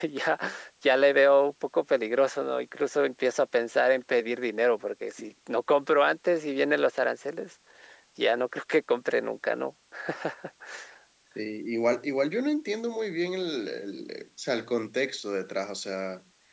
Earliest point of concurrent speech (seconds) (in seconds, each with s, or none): none